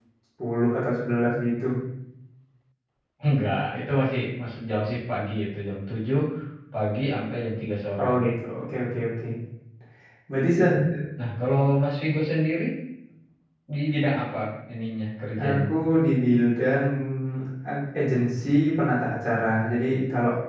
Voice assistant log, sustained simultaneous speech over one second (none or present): none